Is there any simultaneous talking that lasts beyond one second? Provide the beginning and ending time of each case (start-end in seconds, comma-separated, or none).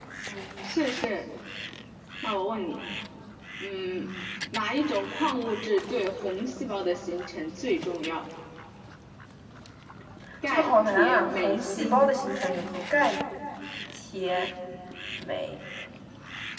10.5-12.1